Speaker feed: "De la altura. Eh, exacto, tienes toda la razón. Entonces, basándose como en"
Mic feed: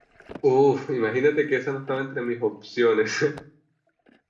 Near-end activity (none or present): present